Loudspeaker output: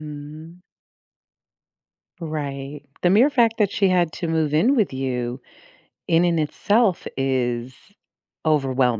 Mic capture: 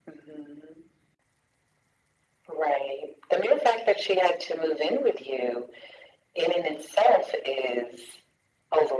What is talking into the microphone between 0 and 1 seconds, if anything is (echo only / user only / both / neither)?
echo only